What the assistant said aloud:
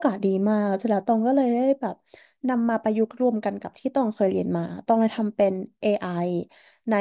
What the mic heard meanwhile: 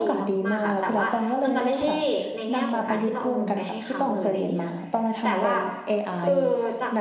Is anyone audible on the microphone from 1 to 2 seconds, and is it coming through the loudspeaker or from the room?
both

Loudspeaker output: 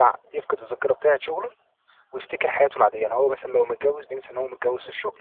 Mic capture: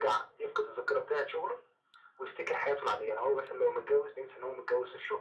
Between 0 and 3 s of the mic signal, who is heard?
echo only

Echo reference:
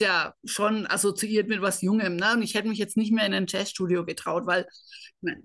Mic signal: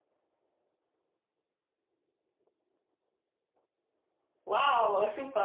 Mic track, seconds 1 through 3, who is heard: neither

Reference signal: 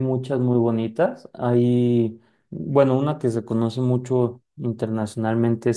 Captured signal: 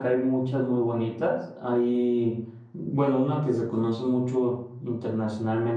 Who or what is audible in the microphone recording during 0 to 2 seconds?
echo only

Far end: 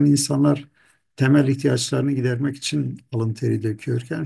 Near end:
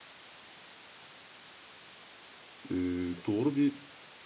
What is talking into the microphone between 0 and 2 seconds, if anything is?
neither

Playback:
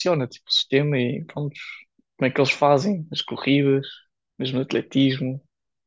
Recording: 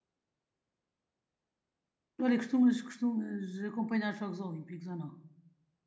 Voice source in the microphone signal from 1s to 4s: user only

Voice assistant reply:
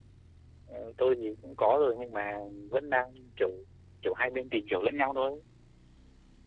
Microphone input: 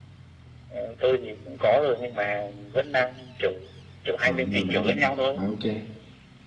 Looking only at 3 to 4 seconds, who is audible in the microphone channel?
echo only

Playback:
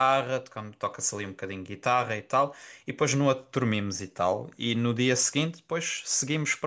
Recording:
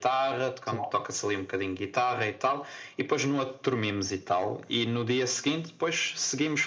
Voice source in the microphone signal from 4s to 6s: echo only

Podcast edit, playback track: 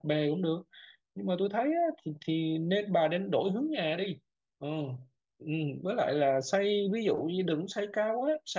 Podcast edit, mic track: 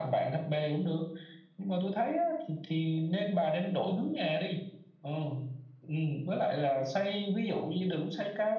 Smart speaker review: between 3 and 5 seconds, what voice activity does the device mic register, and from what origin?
echo only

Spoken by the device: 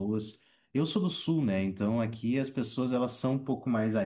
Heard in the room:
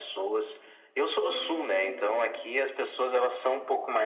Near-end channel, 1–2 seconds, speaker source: both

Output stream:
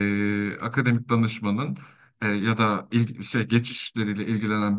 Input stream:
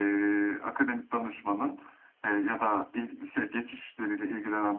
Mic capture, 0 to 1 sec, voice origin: echo only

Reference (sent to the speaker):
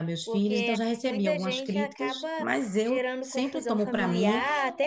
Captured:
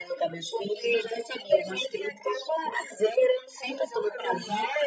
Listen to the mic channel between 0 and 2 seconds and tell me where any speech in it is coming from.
echo only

